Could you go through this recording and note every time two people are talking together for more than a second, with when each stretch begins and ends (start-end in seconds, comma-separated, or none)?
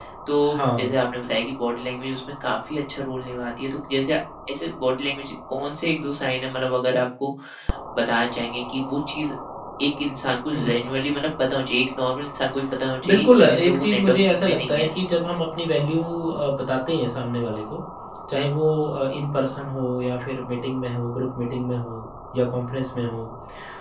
13.0-14.9